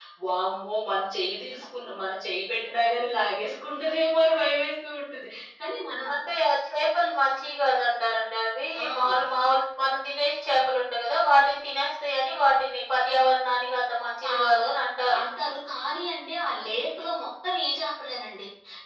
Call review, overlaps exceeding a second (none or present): none